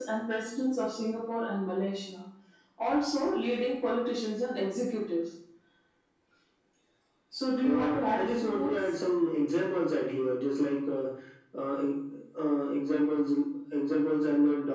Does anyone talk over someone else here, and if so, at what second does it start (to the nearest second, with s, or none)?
8 s